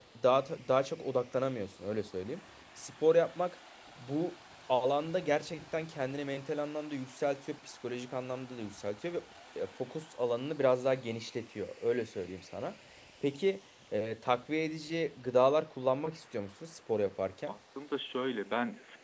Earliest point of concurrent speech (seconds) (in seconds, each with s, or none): none